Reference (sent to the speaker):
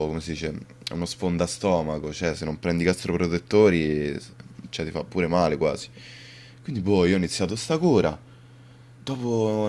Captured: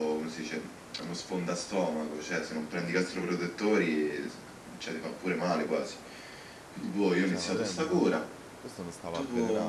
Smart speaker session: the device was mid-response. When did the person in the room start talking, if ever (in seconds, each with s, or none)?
7.2 s